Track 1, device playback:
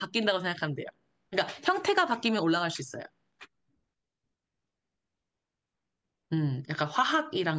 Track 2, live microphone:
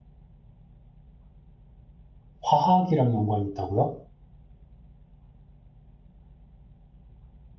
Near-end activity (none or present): present